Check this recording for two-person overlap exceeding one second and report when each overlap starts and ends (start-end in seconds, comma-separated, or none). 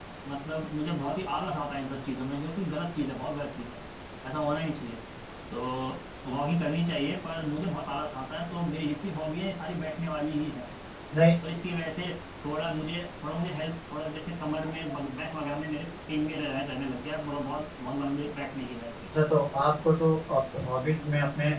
none